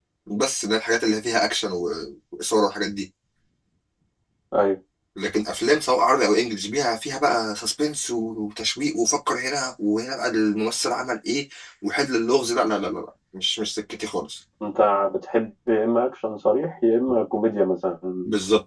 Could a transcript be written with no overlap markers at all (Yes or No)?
Yes